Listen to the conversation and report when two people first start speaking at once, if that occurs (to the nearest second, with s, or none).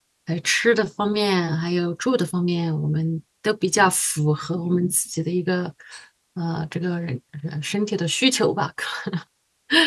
none